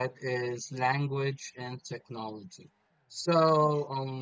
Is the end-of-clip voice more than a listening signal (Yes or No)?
No